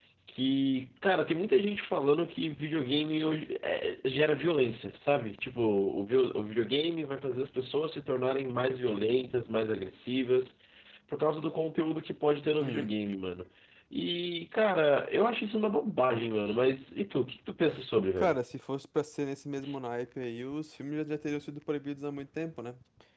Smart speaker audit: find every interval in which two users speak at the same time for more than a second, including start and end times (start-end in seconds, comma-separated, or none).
none